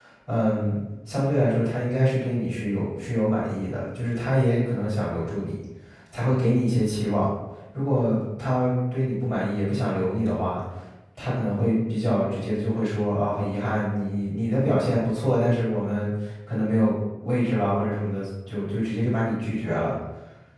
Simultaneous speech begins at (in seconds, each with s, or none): none